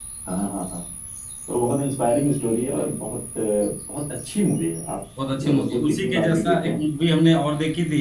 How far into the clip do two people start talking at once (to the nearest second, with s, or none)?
5 s